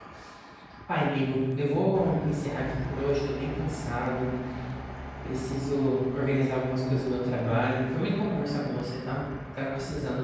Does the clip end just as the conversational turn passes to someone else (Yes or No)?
No